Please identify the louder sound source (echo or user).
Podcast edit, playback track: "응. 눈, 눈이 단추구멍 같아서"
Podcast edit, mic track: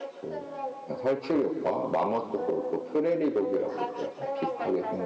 user